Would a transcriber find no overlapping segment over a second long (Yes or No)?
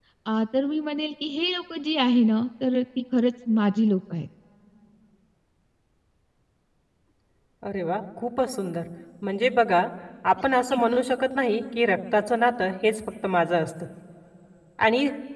Yes